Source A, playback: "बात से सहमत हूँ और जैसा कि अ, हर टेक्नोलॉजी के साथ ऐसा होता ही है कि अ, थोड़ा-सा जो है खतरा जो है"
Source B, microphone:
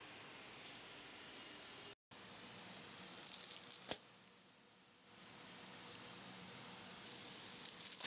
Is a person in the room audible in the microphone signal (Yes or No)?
No